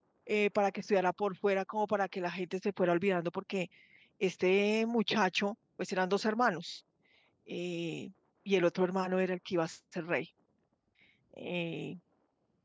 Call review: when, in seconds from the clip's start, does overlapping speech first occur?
none

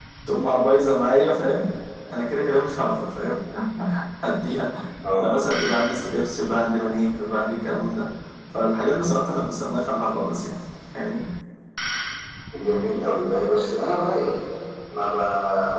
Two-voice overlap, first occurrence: none

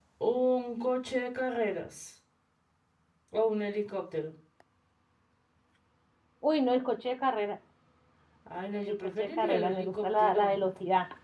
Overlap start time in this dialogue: 9.0 s

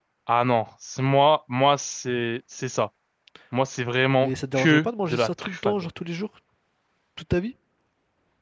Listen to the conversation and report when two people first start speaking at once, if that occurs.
4.2 s

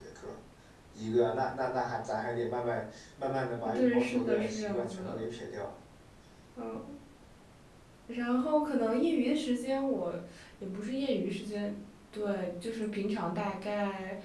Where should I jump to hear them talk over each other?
3.6 s

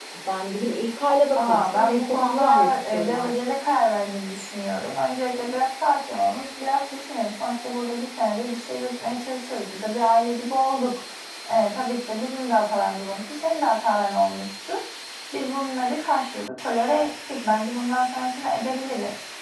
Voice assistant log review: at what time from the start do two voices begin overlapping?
1.4 s

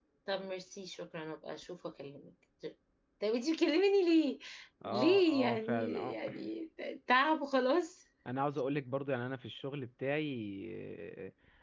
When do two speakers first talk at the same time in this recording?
4.8 s

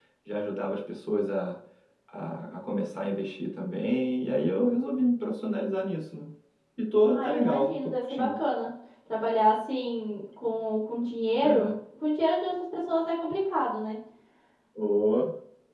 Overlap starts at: 7.1 s

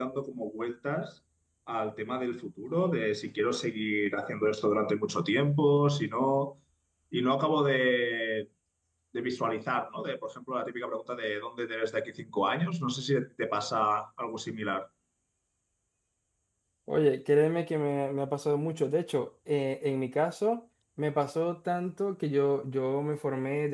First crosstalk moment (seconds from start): none

